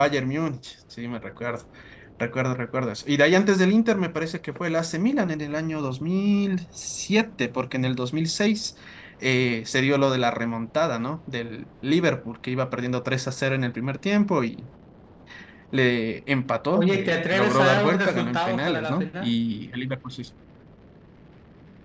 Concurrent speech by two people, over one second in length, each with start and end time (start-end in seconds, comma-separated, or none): 16.8-19.4